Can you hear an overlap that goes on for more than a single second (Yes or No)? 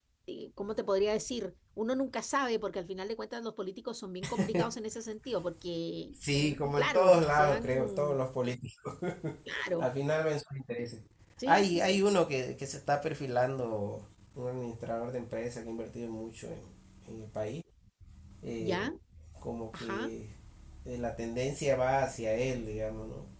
Yes